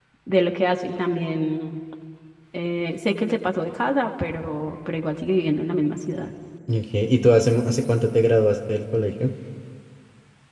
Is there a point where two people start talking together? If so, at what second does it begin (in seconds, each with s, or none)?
none